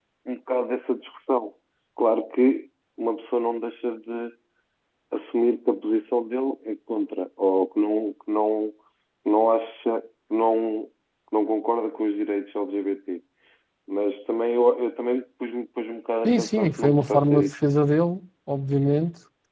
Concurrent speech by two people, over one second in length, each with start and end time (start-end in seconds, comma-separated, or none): 16.2-17.5